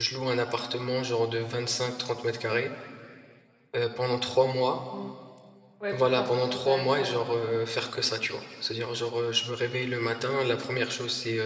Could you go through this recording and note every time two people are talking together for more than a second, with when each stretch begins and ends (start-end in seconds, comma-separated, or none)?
5.9-7.1